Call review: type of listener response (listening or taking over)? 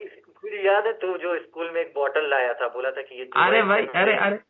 taking over